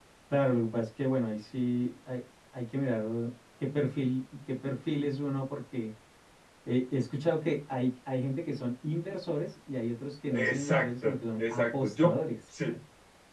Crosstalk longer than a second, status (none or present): present